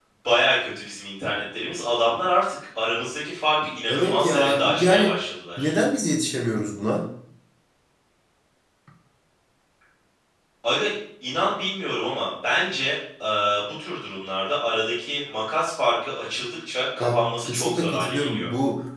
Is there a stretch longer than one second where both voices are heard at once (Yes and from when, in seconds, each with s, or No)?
Yes, from 3.9 s